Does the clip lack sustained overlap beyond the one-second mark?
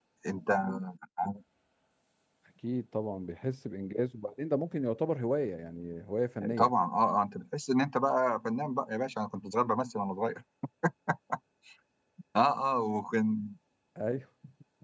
Yes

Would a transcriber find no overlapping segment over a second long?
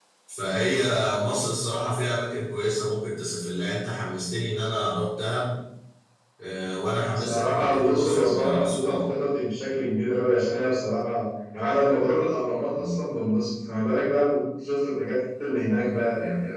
No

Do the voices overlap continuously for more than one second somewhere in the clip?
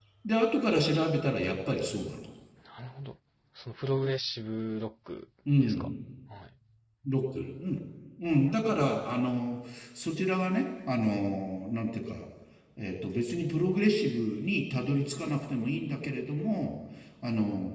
No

